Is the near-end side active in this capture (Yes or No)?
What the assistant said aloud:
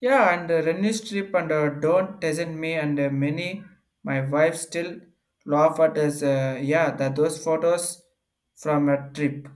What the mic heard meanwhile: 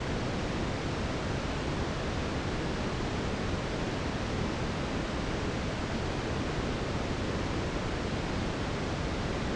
No